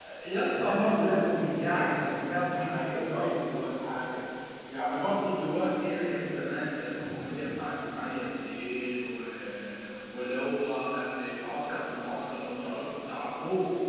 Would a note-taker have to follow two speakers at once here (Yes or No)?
Yes